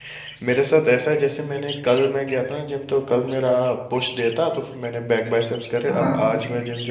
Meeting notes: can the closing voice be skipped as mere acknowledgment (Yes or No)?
Yes